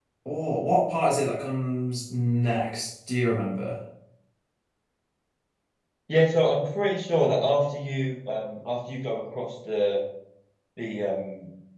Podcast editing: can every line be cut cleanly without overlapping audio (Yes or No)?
Yes